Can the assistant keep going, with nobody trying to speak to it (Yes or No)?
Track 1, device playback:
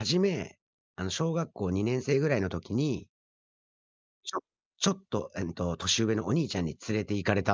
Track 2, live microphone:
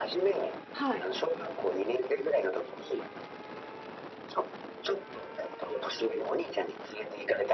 No